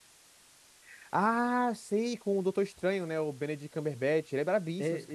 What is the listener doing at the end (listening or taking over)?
taking over